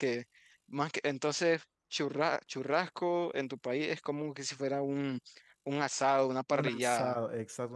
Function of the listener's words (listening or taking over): taking over